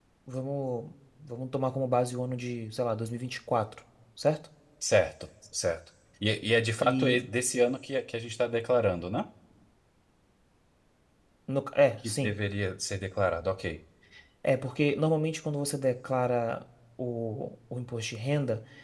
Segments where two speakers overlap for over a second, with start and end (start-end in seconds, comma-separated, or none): none